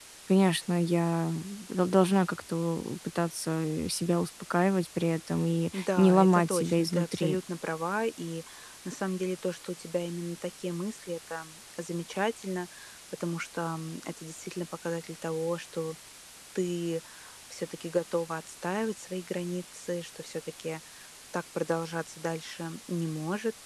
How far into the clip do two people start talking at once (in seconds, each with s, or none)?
5.7 s